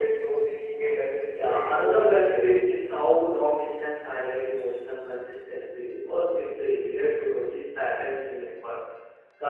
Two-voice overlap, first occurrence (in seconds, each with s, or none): 1.3 s